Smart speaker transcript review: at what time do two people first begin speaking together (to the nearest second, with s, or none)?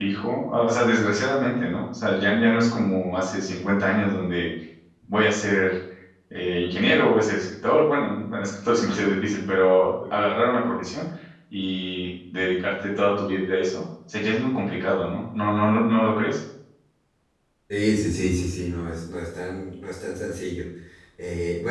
none